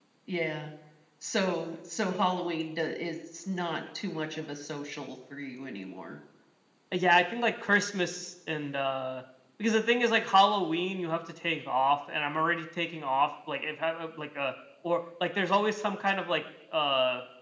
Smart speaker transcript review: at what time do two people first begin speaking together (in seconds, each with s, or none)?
none